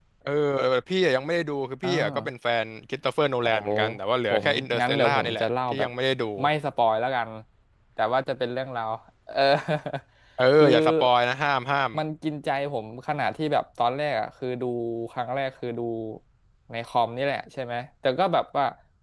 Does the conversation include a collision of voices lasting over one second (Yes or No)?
Yes